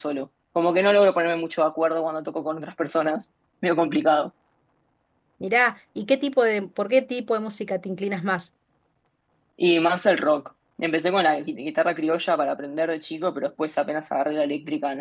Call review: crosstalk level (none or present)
none